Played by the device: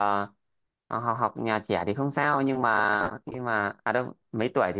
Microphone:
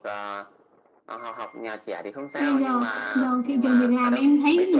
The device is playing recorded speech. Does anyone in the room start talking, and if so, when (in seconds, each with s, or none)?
2.3 s